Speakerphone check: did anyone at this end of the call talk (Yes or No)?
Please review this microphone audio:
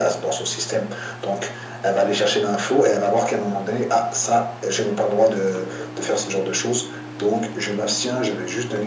No